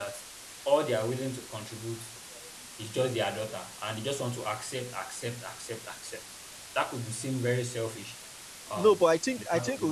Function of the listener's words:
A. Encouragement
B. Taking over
B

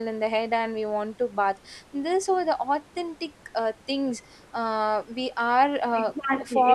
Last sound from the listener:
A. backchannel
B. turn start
B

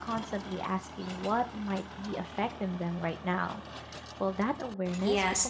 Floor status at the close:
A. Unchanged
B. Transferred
B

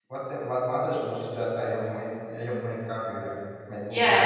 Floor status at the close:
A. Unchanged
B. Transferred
B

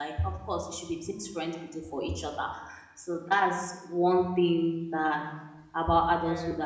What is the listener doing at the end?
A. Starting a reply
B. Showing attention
B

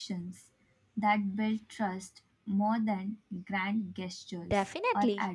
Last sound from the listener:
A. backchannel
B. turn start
B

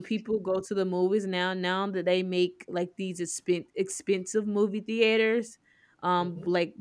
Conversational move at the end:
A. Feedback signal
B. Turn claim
A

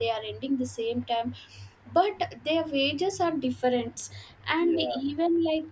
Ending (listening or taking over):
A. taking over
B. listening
B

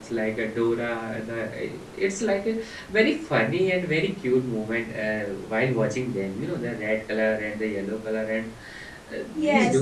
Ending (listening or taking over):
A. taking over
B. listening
A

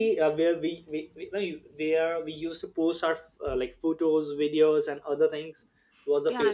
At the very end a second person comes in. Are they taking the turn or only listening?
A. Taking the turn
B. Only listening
A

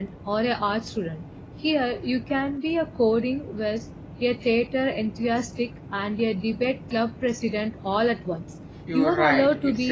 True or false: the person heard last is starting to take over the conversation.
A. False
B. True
B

